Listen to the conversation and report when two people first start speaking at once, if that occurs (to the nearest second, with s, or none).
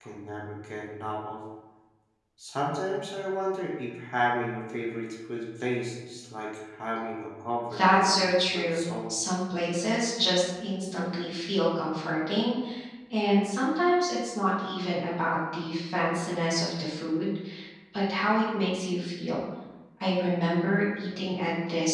8 s